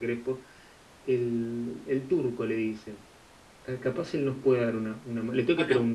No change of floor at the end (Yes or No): No